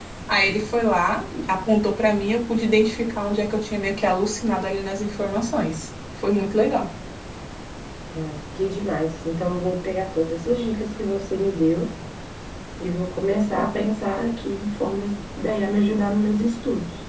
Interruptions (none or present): none